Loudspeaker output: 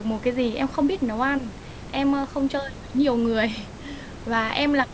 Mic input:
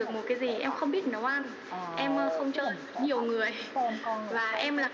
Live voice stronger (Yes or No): No